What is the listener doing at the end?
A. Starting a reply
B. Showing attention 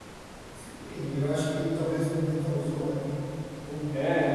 B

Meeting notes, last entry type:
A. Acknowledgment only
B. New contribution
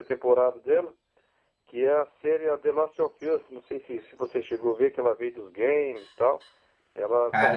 A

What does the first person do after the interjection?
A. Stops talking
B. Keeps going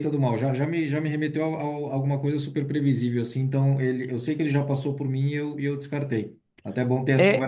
A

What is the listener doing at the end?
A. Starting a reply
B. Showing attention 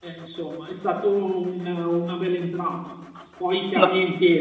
B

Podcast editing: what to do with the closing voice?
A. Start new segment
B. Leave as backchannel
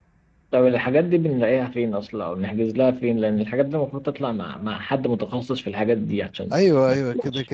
A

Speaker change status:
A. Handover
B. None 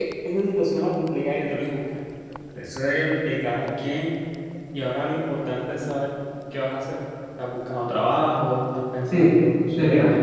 A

